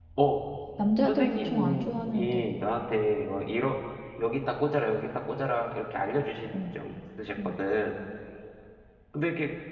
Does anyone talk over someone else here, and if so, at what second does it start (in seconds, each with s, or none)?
1.0 s